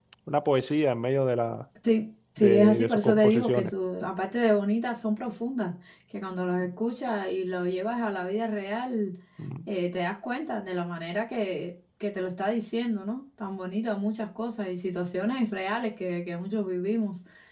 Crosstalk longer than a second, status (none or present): present